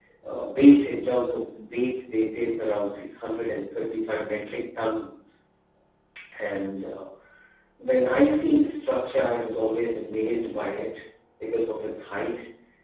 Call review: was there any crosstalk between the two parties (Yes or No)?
No